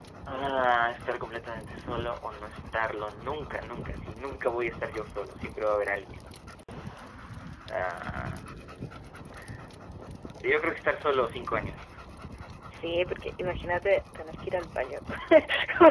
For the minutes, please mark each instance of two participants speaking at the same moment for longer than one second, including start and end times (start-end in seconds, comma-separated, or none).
none